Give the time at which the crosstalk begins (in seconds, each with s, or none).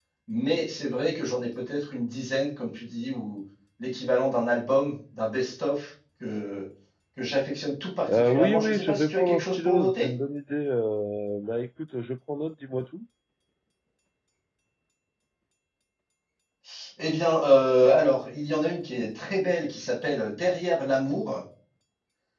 8.1 s